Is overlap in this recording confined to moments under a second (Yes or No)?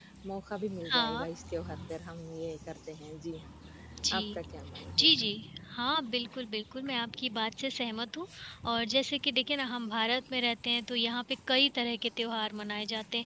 Yes